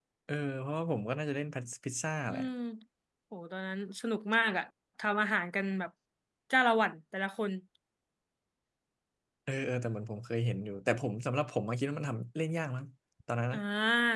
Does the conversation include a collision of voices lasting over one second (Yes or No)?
No